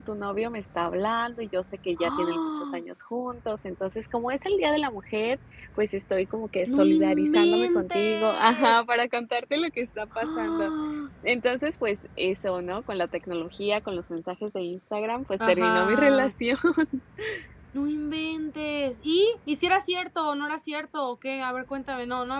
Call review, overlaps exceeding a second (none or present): present